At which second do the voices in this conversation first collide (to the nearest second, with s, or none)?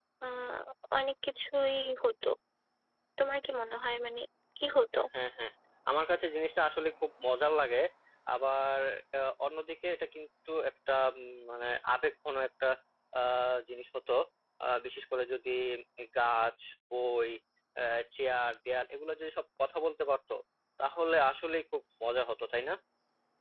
none